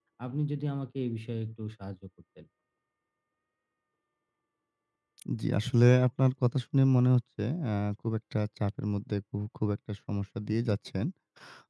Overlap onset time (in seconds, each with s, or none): none